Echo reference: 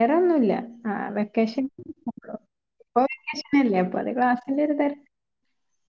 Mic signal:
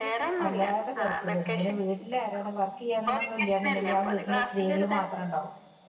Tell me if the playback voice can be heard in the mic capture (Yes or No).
Yes